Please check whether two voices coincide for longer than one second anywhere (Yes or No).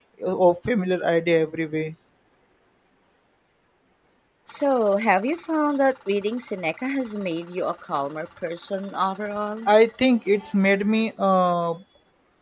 No